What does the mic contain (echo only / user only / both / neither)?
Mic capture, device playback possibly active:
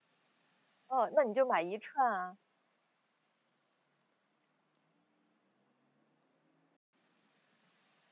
user only